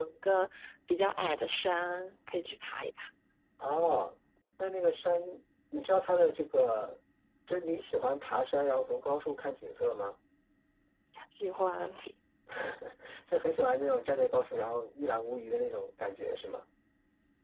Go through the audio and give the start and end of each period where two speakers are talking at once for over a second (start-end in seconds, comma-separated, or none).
none